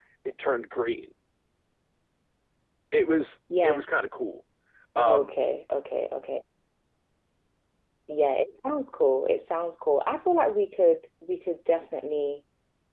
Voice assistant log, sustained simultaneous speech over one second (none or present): none